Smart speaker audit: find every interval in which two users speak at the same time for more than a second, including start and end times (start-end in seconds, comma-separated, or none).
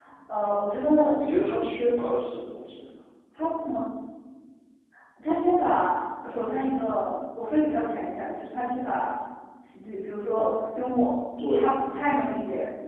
none